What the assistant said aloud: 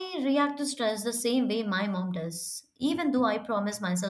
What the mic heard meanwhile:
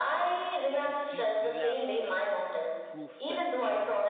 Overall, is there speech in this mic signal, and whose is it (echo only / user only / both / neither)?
both